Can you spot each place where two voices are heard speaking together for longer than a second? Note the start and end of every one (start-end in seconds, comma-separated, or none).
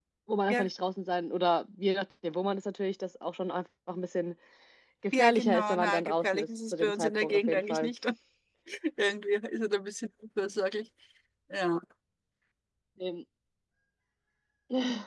5.2-7.9